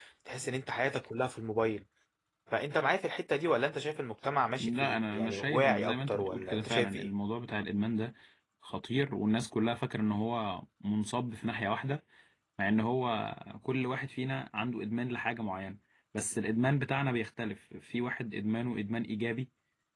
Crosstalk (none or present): present